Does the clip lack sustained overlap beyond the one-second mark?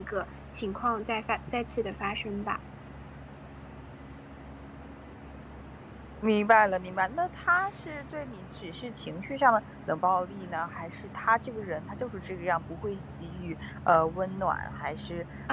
Yes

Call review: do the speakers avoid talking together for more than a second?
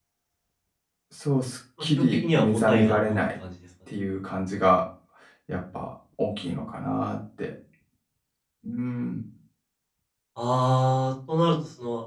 No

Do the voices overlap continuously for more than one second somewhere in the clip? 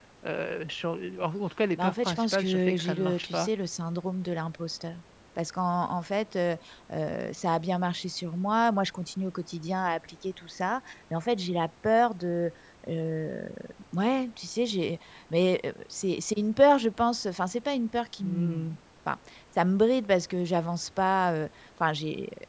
Yes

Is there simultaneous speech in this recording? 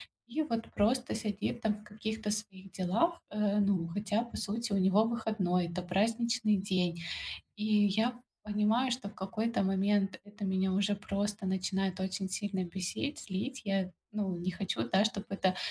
No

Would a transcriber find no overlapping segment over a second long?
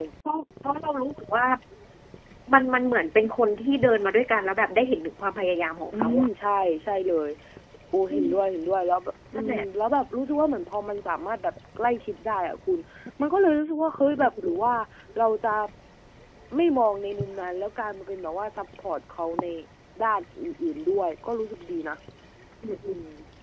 Yes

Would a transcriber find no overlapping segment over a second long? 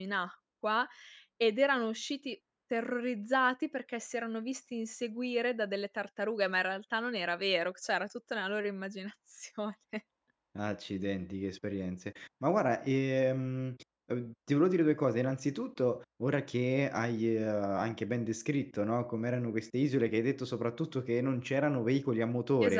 Yes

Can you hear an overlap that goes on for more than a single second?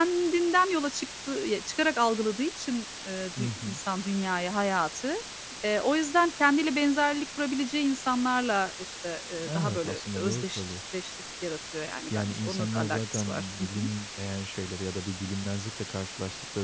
Yes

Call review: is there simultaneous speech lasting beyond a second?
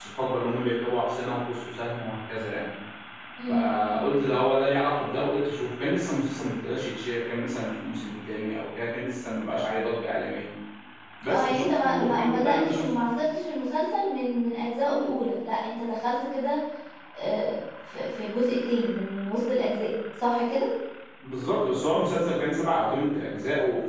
Yes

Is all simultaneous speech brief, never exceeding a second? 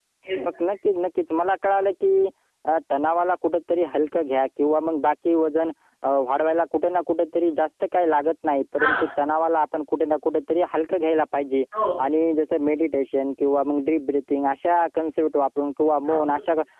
Yes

